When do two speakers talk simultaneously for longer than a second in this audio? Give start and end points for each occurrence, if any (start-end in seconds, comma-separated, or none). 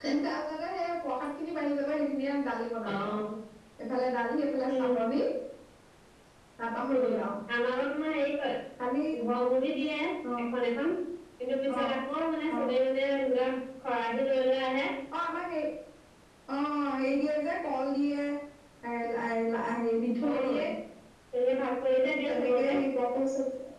none